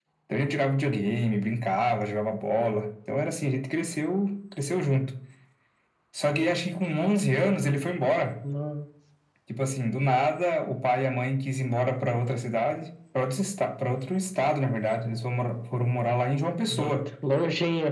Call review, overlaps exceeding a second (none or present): none